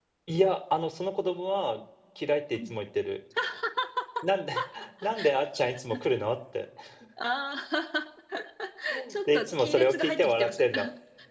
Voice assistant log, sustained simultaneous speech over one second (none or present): present